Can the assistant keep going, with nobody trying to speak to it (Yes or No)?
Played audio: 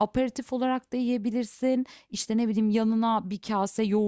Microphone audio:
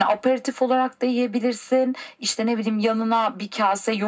Yes